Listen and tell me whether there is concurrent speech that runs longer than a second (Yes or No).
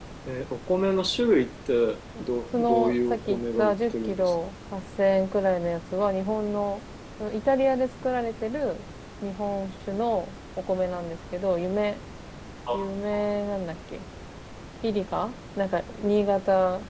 Yes